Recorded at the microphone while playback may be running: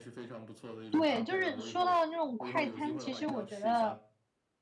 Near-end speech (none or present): present